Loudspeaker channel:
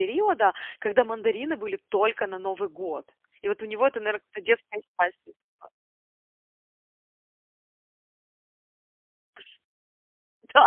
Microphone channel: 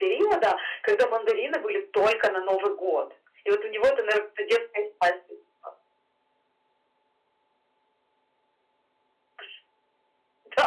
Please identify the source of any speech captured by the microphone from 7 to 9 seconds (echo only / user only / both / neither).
neither